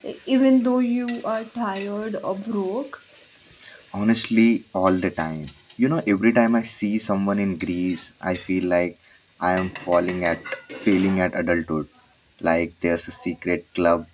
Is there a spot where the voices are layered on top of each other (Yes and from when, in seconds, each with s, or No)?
No